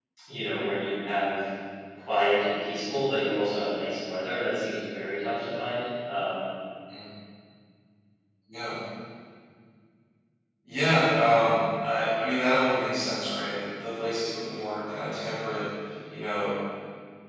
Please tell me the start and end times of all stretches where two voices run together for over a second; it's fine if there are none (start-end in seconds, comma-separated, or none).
none